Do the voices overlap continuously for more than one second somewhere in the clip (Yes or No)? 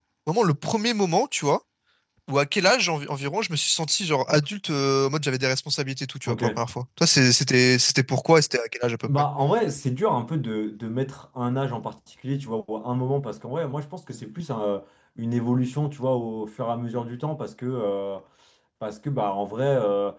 No